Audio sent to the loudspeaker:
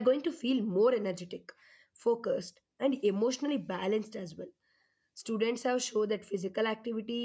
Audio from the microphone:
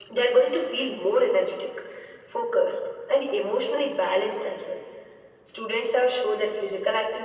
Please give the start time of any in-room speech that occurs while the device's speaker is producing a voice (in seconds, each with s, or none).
none